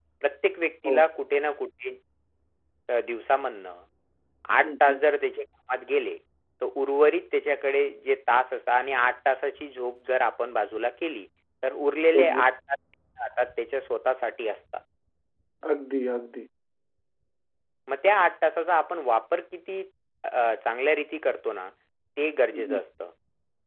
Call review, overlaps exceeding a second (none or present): none